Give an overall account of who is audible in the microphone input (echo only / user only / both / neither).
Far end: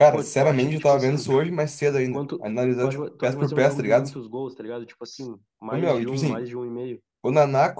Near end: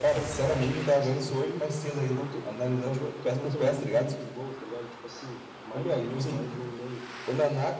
echo only